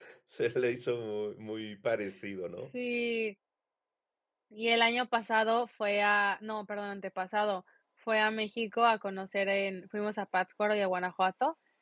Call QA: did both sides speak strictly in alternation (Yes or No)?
Yes